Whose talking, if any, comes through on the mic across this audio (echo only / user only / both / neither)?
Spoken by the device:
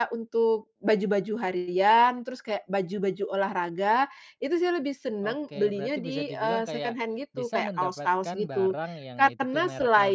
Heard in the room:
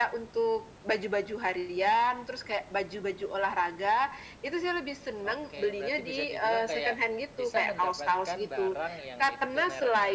echo only